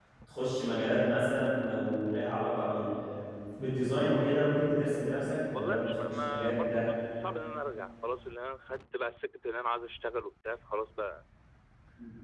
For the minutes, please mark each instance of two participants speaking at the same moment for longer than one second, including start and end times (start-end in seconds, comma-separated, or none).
5.5-6.9